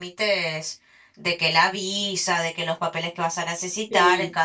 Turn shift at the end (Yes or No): No